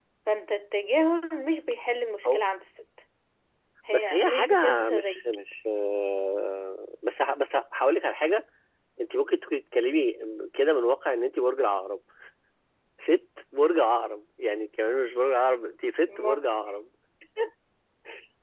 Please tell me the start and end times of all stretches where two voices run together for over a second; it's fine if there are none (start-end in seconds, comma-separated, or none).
3.9-5.4